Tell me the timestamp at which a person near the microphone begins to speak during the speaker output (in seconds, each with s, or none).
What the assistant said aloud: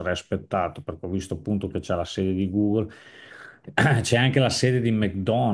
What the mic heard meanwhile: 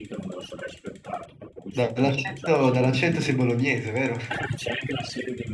1.7 s